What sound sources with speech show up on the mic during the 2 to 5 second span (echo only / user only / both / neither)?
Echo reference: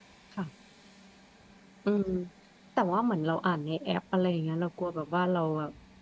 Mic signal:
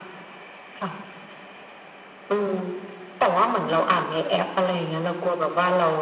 echo only